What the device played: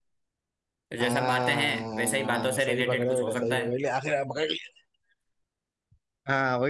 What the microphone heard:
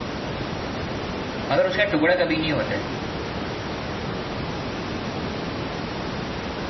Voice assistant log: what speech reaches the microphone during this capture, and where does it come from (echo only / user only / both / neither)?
user only